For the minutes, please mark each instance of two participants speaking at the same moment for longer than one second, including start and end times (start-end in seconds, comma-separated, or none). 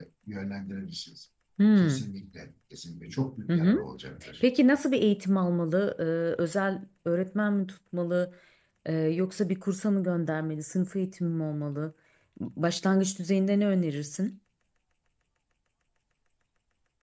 none